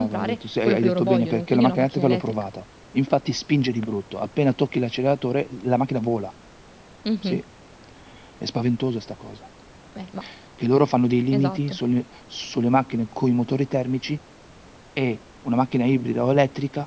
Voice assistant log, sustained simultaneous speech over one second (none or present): present